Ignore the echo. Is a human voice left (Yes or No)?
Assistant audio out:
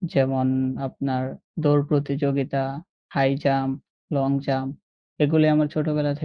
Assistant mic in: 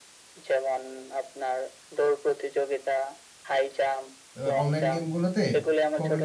Yes